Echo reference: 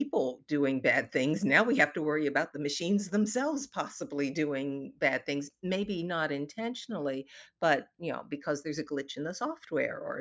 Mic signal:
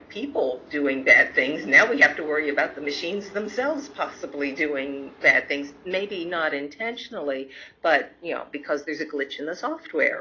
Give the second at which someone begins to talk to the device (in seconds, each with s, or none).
none